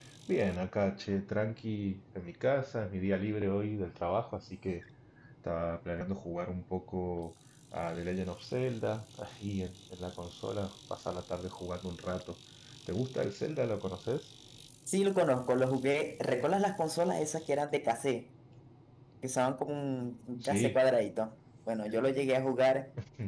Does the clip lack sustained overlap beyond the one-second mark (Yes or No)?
Yes